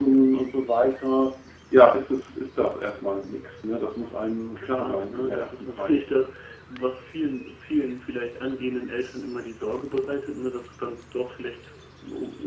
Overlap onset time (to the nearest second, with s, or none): 5 s